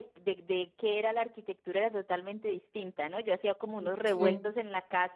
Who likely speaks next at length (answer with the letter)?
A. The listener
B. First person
B